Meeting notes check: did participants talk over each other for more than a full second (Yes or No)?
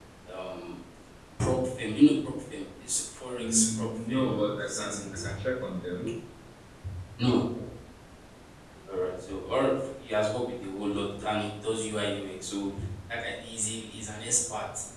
Yes